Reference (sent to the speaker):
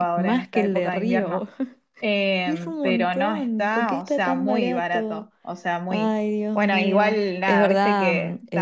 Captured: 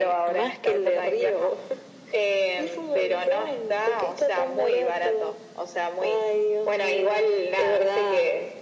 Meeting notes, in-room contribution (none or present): none